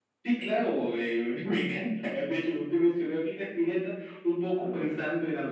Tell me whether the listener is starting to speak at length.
No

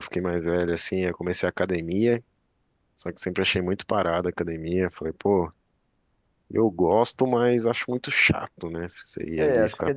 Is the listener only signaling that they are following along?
No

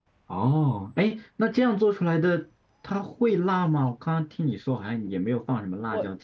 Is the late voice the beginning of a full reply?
Yes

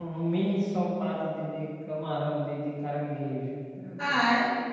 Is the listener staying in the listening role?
No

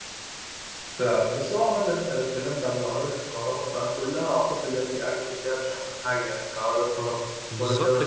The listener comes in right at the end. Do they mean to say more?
Yes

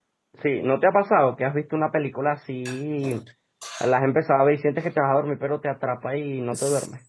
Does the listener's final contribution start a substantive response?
Yes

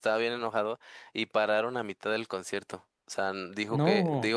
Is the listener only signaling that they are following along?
Yes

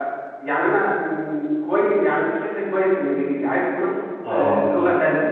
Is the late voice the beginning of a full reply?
No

